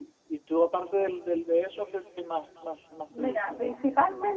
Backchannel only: No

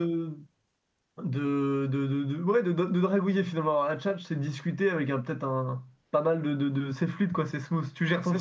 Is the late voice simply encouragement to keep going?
No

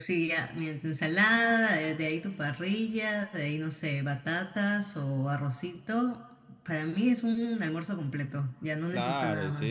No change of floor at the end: No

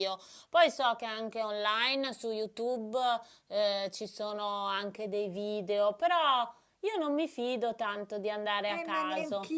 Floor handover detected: Yes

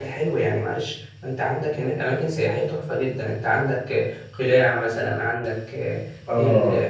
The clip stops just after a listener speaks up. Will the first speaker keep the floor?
Yes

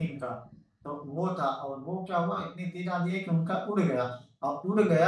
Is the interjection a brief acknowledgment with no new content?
Yes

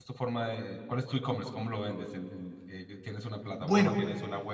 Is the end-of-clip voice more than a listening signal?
Yes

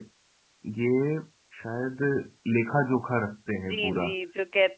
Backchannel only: No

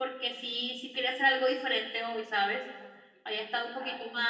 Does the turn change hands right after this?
No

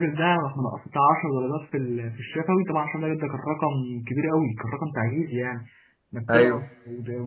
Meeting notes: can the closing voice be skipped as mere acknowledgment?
Yes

